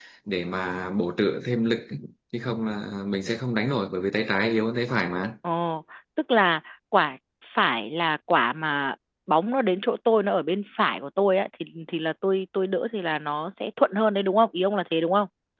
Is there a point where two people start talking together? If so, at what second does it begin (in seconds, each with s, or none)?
none